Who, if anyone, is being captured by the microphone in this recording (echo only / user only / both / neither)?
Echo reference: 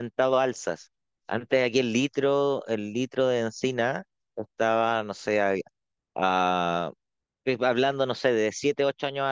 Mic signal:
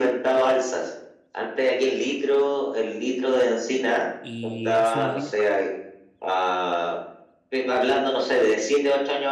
both